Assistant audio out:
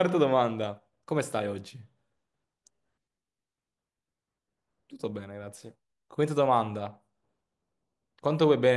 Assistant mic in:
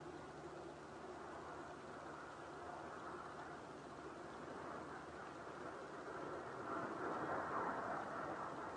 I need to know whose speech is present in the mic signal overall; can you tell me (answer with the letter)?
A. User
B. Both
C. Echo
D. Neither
D